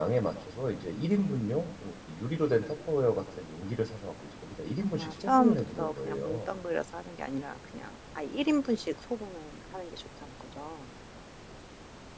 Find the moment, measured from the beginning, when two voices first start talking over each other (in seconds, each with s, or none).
5.0 s